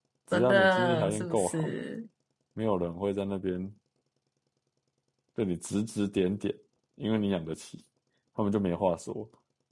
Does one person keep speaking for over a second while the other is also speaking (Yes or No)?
Yes